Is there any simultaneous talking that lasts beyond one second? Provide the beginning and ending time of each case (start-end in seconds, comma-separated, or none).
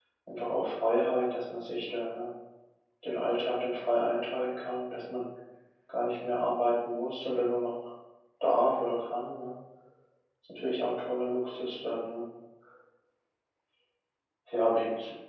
none